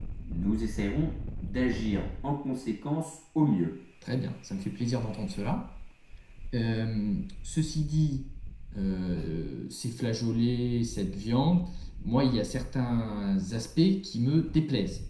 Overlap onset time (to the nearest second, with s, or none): none